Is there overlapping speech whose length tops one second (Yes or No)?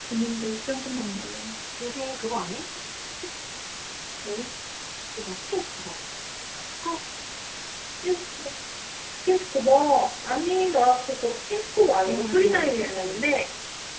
Yes